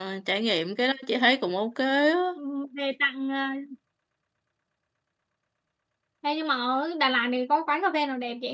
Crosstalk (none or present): none